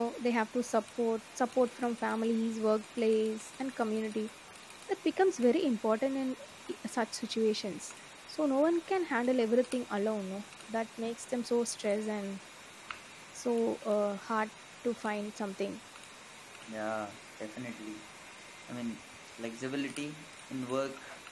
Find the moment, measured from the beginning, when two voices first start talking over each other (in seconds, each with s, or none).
none